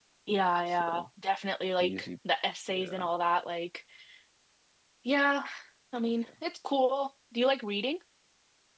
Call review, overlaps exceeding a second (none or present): none